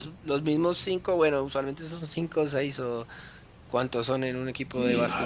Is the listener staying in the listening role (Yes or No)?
No